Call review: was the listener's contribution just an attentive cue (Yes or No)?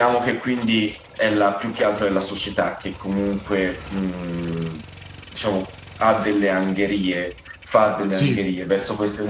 Yes